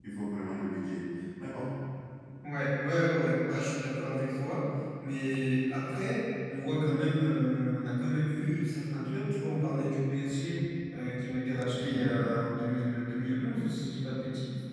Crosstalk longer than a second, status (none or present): none